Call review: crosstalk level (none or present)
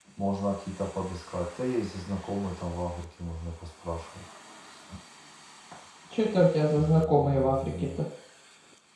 present